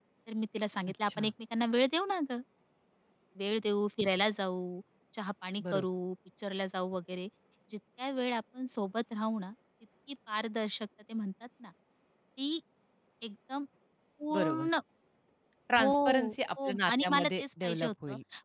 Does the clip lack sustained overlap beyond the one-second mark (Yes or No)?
No